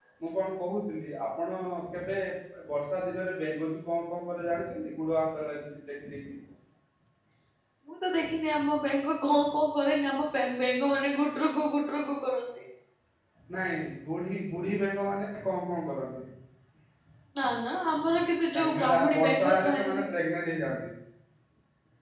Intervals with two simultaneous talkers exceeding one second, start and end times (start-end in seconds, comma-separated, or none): 18.6-20.0